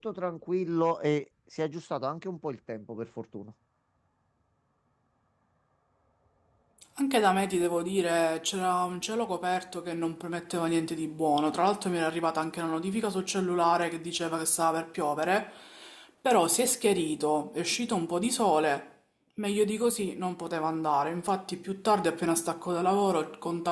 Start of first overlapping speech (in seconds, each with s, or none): none